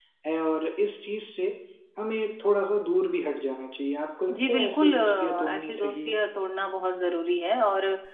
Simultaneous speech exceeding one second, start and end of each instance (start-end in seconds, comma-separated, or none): 4.4-6.2